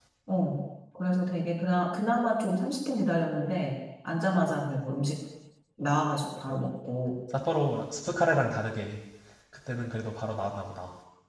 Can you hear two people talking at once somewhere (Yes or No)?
No